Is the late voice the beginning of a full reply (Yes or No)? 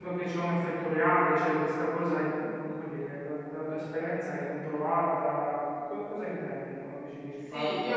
Yes